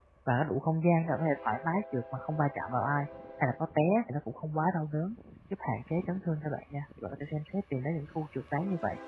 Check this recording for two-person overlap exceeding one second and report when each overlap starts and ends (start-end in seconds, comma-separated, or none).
none